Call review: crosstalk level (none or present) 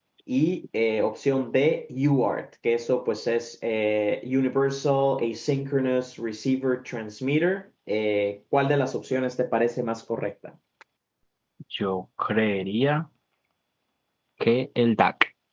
none